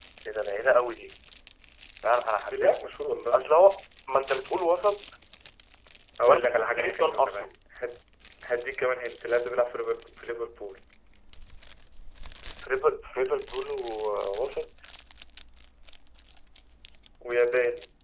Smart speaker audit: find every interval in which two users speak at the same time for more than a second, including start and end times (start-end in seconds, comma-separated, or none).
6.2-7.5